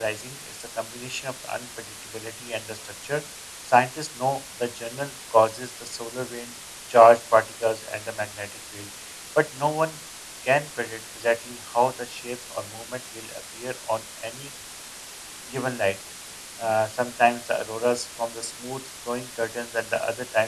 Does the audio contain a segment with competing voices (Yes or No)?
No